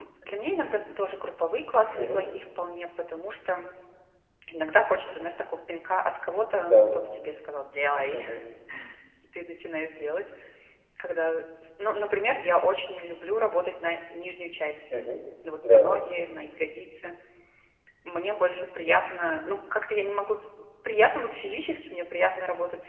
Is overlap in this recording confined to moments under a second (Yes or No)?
Yes